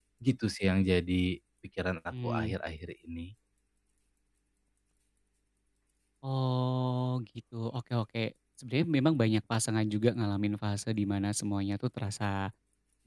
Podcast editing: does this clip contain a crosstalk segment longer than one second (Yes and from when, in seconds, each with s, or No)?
No